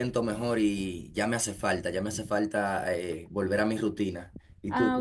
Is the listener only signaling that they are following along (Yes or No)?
No